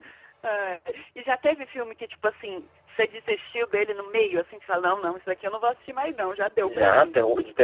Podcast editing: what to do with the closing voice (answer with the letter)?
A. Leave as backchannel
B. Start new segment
B